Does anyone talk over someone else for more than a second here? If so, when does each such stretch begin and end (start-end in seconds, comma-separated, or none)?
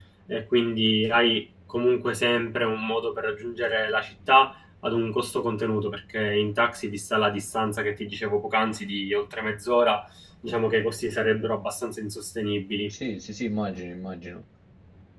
none